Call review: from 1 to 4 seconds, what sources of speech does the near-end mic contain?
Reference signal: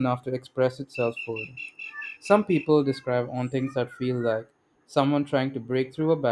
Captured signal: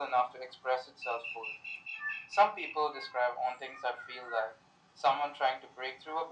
echo only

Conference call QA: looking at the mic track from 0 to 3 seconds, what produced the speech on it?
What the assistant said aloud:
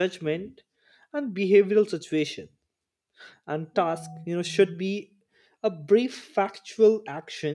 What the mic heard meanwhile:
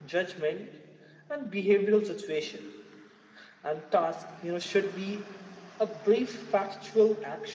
echo only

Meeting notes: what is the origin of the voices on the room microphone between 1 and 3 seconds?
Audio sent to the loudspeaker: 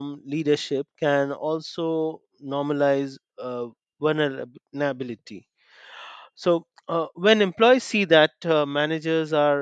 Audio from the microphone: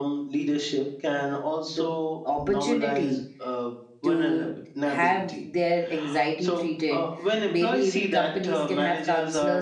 both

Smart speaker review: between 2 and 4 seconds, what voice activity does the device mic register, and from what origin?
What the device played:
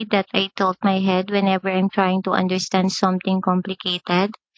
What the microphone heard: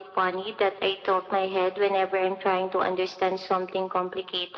echo only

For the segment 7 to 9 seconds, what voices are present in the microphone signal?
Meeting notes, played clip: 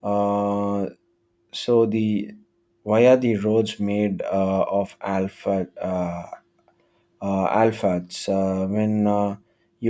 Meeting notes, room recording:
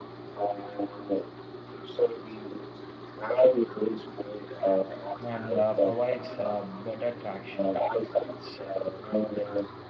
both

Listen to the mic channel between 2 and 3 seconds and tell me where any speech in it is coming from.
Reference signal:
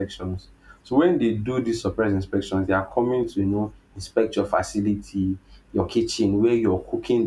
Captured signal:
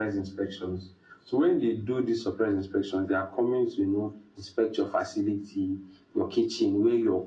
echo only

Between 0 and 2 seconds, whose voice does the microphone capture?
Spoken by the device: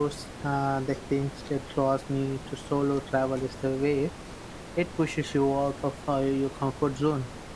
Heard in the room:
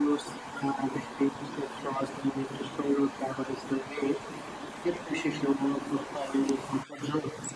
echo only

